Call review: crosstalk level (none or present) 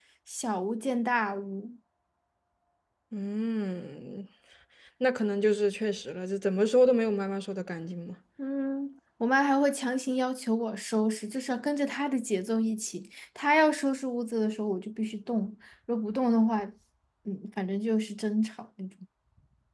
none